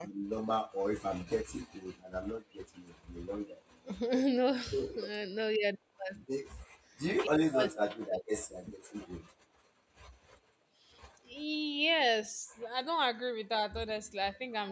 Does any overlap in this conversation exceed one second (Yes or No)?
No